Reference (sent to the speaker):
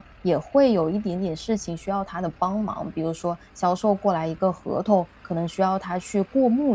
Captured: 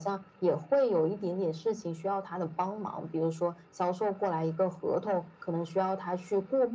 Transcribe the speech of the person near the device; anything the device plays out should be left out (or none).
none